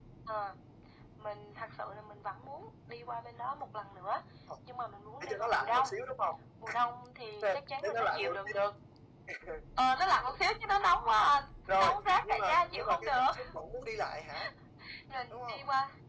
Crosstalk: present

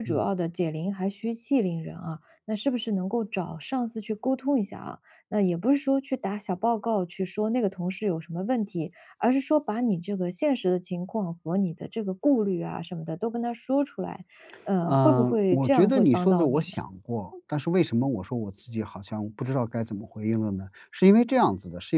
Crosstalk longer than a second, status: present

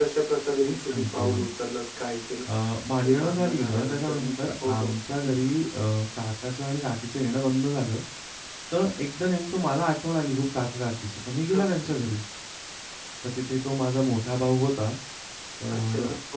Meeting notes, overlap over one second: present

